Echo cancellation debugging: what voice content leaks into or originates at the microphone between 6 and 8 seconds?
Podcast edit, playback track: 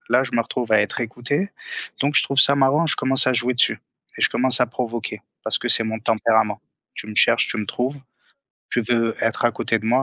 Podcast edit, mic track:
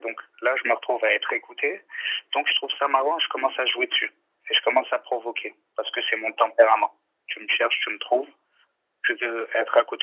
echo only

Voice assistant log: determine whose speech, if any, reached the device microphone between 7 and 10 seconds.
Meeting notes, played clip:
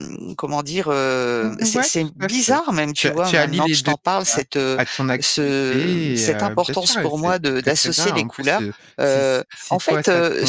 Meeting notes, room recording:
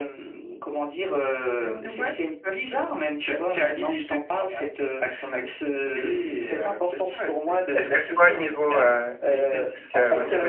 both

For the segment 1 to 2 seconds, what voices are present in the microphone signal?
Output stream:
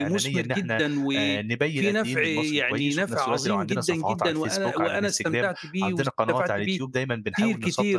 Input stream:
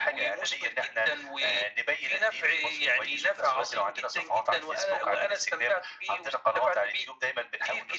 echo only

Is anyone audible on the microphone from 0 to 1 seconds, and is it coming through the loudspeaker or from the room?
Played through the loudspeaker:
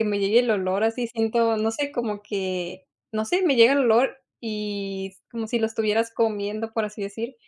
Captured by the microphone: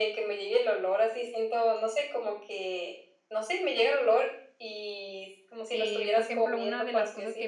echo only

